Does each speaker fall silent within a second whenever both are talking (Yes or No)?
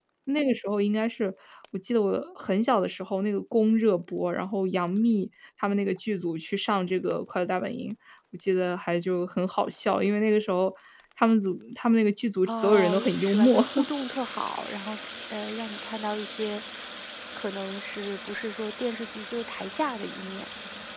No